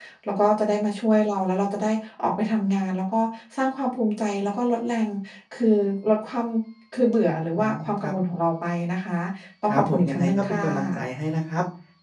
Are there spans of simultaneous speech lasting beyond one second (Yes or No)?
Yes